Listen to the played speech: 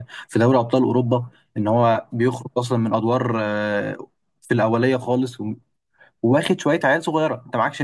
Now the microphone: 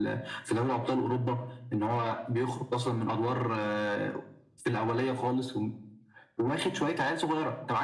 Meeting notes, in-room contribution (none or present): none